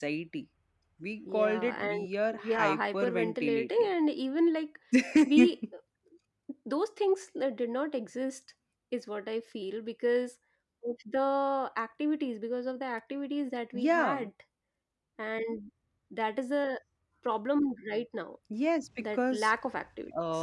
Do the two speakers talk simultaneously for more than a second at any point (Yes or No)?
Yes